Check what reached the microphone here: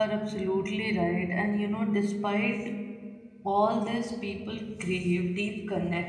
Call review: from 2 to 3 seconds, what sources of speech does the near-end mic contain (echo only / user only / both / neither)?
user only